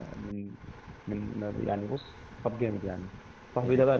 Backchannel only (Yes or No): Yes